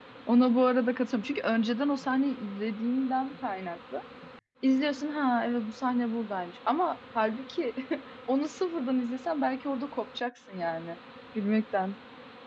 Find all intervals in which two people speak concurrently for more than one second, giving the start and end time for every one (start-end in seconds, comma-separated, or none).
none